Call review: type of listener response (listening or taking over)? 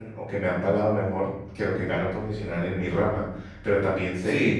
listening